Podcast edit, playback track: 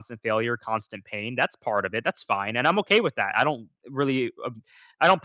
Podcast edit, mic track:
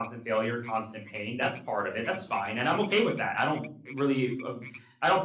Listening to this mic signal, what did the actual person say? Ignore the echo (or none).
none